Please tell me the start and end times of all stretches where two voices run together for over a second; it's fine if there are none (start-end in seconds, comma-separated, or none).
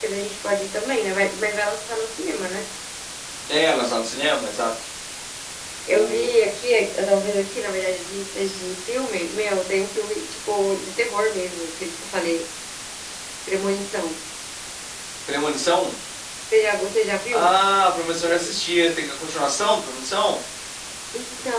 none